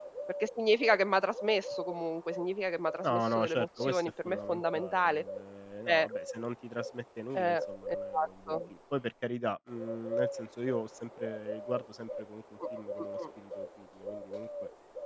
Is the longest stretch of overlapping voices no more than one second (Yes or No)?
No